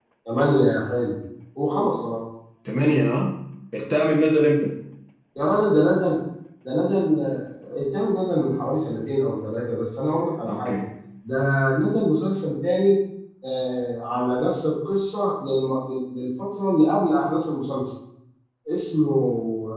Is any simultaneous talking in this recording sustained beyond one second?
No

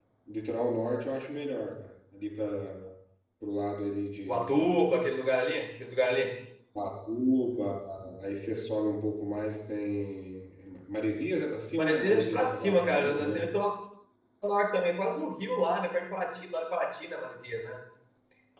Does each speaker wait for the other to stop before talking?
No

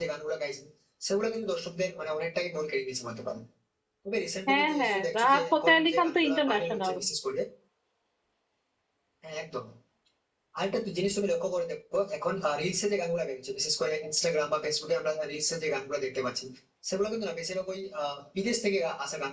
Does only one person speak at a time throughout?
No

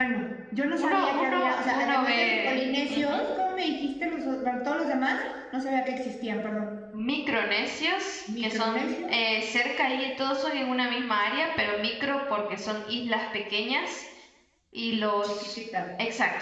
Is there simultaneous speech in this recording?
Yes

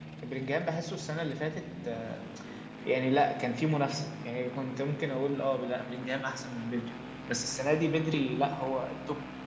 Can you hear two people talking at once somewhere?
No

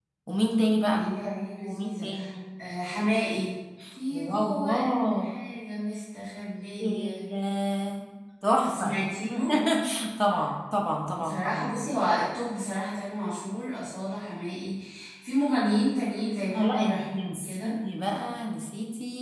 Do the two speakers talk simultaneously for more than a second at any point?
Yes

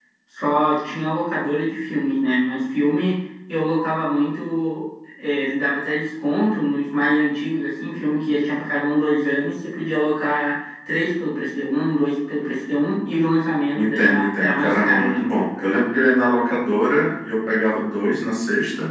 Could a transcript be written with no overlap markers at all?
No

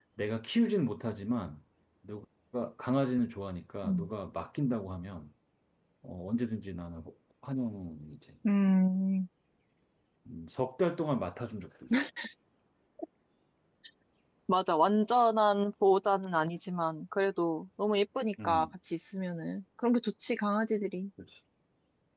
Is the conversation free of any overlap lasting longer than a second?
Yes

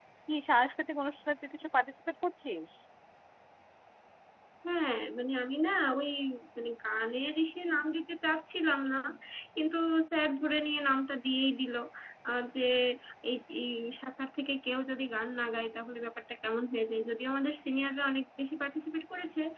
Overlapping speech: No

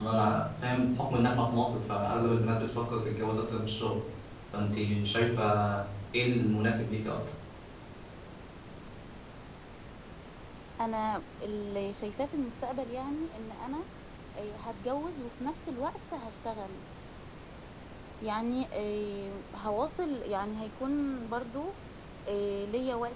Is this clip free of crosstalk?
Yes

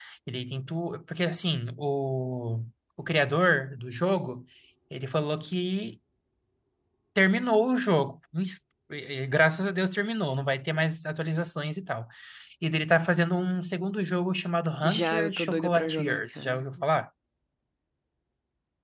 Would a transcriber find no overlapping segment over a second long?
No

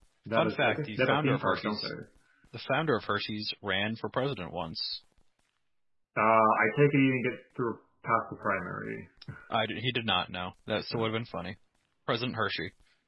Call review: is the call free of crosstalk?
No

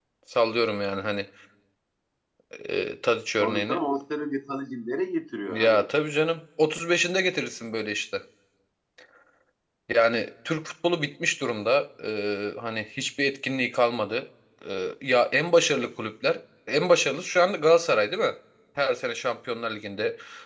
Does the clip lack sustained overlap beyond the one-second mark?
Yes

